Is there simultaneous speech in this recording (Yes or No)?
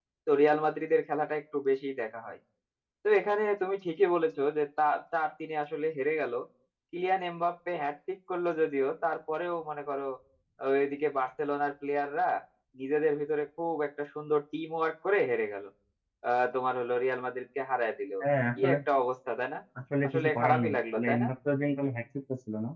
Yes